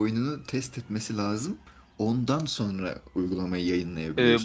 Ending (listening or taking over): taking over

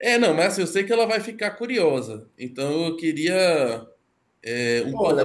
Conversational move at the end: taking over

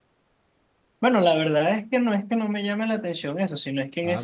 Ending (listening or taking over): listening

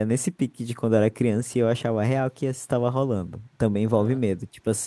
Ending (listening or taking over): listening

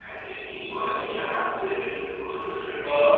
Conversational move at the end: listening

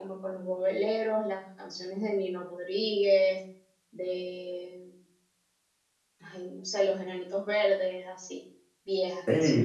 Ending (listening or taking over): taking over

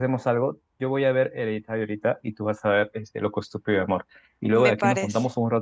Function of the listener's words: listening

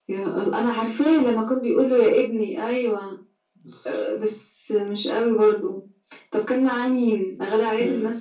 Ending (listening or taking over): taking over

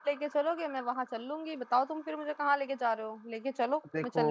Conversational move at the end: taking over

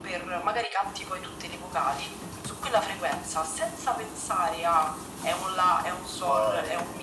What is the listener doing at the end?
listening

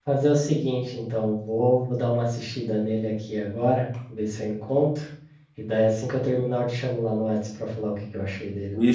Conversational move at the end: taking over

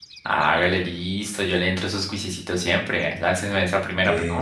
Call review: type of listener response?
taking over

